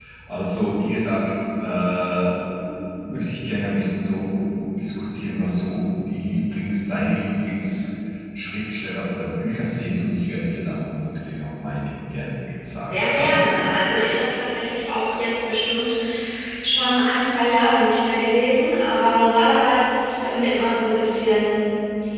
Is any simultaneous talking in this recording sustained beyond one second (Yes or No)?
No